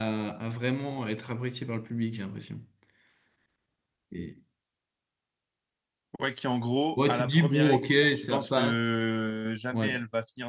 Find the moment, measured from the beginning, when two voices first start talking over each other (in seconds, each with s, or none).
7.0 s